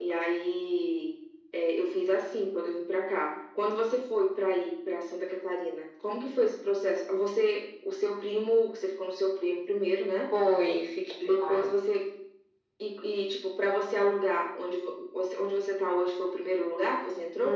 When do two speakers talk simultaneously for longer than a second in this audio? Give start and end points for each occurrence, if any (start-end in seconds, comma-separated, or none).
none